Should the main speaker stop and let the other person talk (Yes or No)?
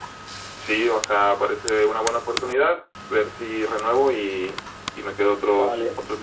Yes